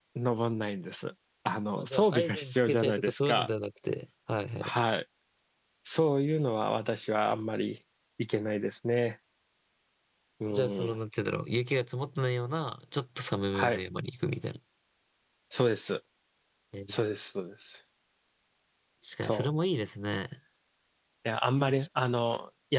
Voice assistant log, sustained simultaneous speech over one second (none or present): present